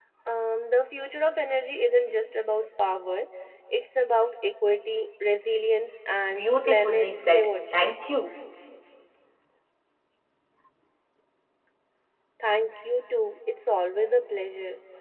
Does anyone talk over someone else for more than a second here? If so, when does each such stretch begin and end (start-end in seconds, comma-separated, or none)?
6.3-7.9